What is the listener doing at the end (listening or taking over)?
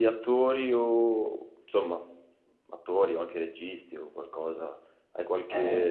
listening